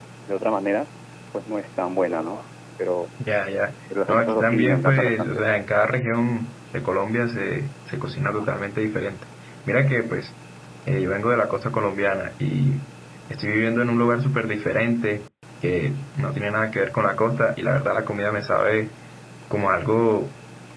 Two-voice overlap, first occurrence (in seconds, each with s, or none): 4.1 s